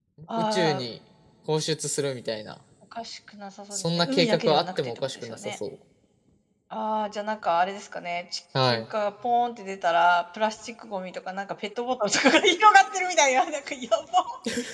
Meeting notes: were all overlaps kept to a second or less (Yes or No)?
No